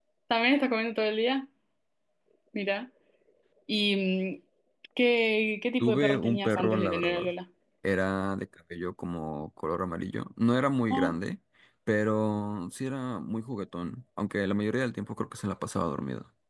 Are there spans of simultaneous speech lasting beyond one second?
Yes, from 5.8 s

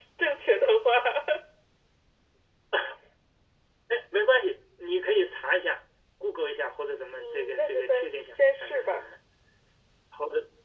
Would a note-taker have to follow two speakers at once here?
Yes, from 7.2 s

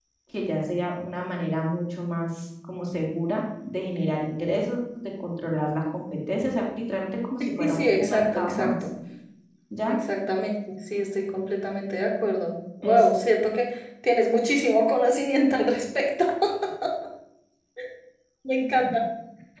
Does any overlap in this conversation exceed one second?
Yes, from 7.4 s

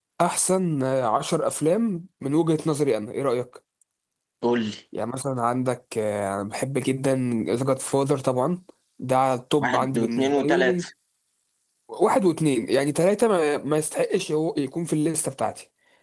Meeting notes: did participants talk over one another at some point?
Yes, from 9.6 s

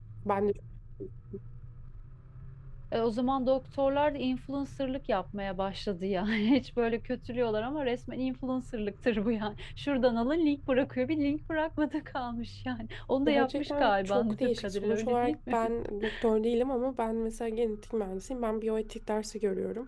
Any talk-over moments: Yes, from 13.3 s

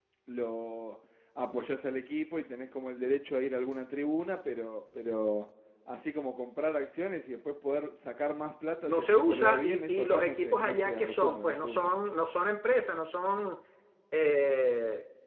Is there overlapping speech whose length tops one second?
Yes, from 8.8 s

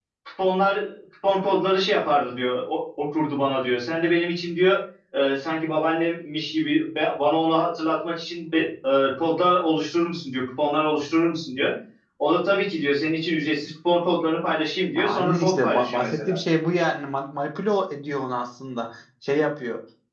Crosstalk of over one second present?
Yes, from 15.0 s

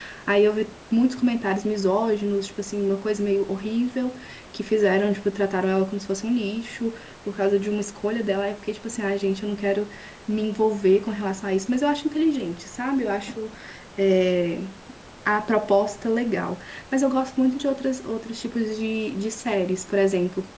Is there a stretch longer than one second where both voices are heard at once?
No

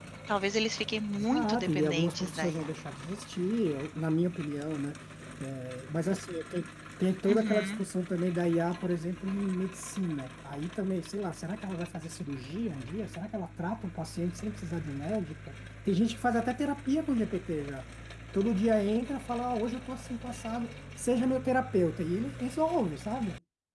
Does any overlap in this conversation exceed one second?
Yes, from 1.1 s

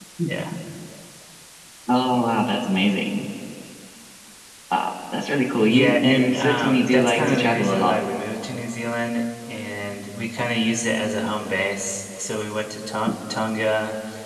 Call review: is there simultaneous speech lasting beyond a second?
Yes, from 5.7 s

